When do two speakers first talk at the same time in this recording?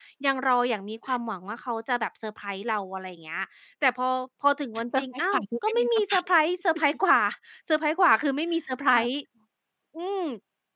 4.9 s

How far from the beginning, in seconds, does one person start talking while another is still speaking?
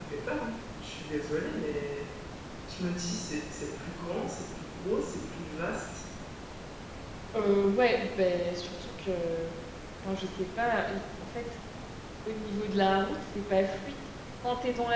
none

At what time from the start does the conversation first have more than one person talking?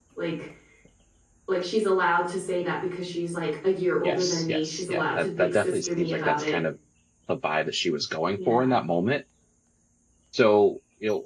4.0 s

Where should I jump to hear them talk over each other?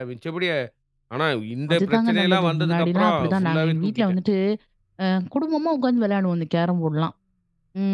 1.7 s

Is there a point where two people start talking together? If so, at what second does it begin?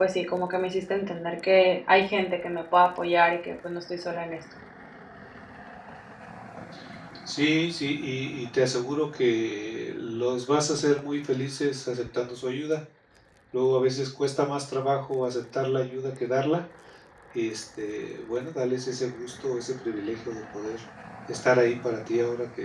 none

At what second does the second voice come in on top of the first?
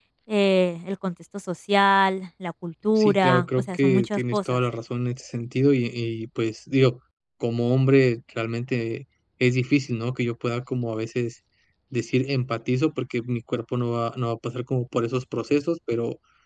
3.0 s

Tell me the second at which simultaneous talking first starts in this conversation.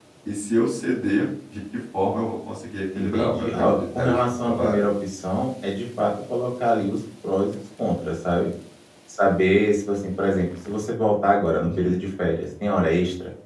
3.0 s

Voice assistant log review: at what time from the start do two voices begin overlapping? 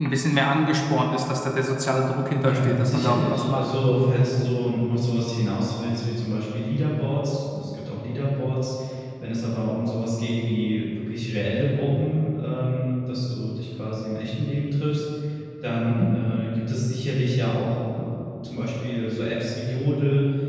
2.4 s

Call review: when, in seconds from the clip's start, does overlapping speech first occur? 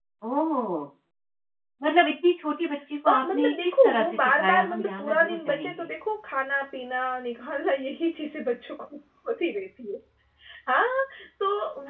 3.1 s

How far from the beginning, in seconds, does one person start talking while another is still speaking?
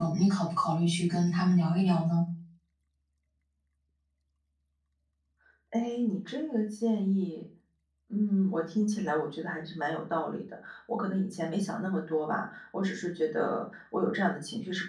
none

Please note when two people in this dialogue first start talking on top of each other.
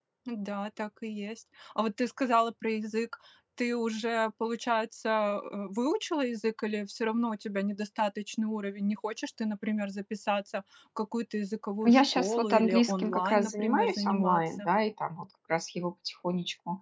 11.8 s

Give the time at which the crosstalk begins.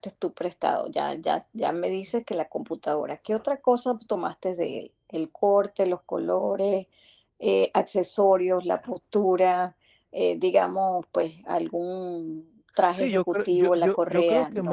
12.9 s

